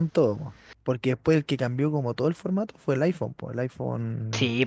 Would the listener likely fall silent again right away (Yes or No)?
No